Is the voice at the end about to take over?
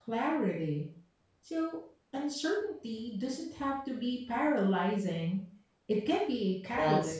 Yes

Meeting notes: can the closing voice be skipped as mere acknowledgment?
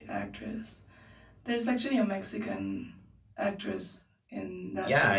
No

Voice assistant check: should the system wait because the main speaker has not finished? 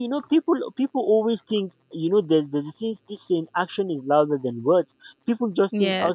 Yes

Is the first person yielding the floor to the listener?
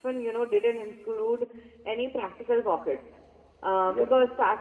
No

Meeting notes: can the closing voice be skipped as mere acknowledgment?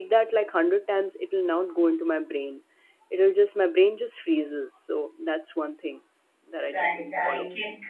No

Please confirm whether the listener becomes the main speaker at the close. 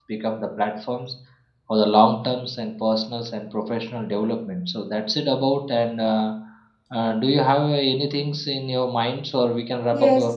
Yes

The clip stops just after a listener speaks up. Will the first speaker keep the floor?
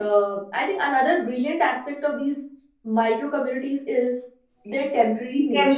No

